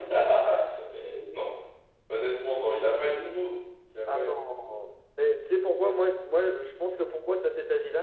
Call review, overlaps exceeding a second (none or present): none